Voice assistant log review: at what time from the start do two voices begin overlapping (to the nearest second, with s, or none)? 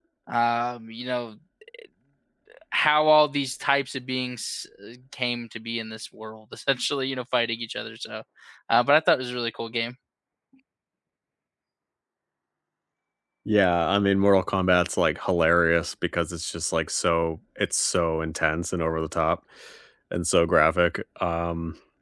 none